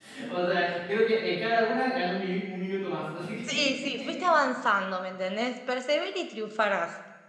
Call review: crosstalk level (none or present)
none